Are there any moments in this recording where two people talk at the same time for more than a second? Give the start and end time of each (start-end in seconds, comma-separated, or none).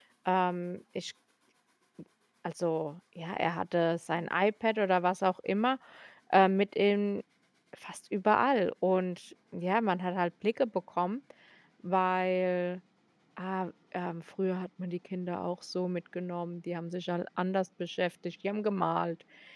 none